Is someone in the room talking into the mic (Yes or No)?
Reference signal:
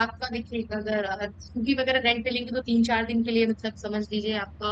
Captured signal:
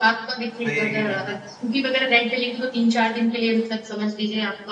Yes